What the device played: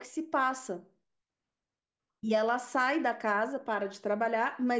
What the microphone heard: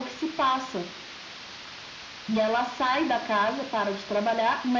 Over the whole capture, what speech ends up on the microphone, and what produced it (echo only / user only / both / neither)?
echo only